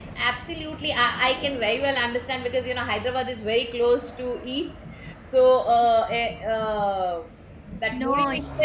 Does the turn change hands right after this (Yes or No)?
No